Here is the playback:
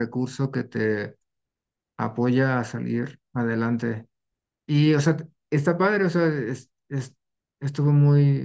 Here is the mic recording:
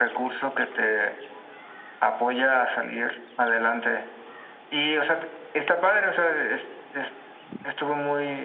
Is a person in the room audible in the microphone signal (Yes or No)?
No